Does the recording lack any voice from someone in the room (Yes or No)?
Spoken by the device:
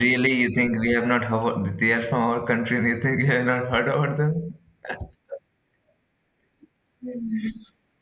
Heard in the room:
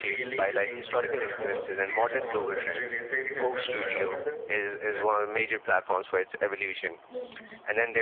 No